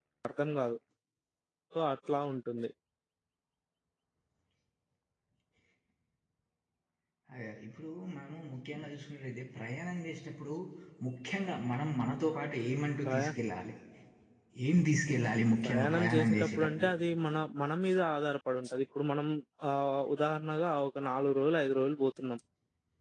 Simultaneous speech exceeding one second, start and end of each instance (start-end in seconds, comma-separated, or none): 15.6-16.9